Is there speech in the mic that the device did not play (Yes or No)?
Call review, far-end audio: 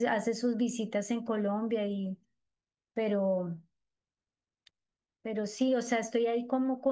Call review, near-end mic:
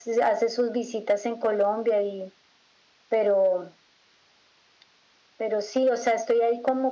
No